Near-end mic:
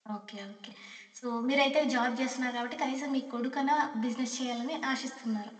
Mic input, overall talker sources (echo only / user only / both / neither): user only